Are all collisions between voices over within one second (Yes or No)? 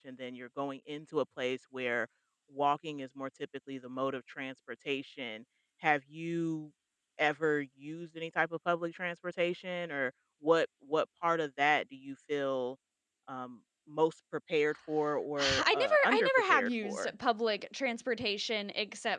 No